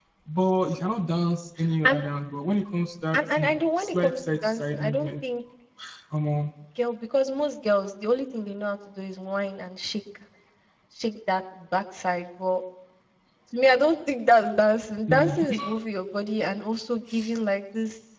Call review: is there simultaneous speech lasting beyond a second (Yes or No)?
Yes